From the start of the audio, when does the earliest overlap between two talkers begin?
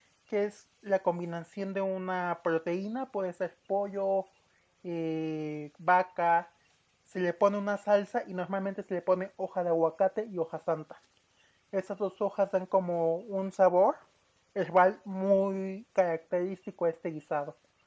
none

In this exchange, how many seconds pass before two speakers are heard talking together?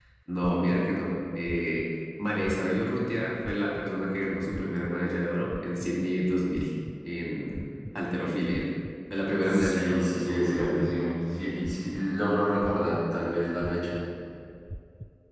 9.4 s

